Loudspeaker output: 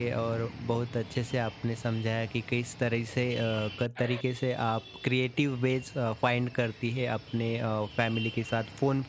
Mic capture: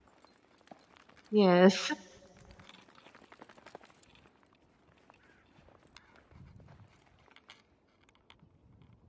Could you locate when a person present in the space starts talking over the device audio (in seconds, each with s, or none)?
1.4 s